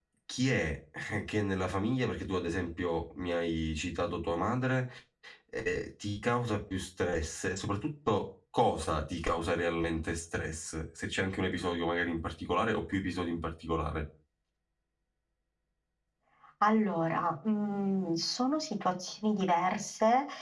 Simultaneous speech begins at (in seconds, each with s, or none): none